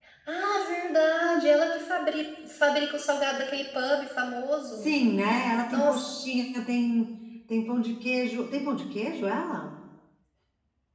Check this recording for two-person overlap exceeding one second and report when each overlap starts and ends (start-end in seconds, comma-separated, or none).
none